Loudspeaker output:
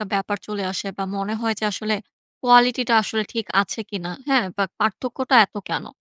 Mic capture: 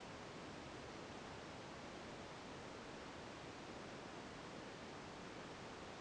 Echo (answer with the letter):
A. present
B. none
B